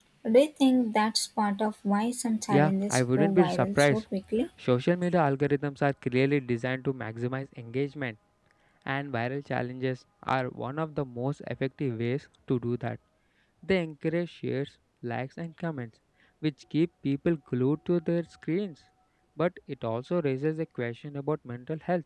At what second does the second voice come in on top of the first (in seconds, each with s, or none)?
2.5 s